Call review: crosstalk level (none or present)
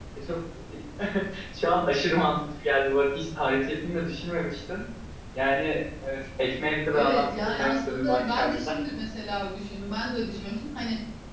present